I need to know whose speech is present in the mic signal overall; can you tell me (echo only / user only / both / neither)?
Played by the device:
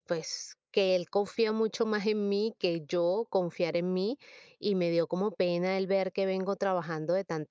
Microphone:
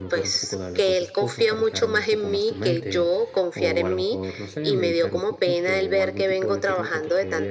both